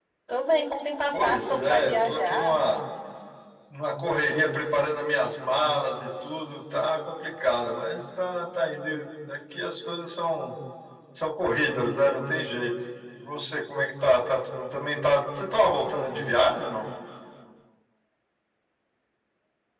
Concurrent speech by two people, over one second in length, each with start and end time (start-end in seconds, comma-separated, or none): 1.1-2.5